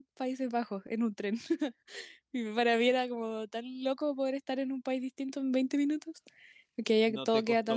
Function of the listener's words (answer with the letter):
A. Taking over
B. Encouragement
A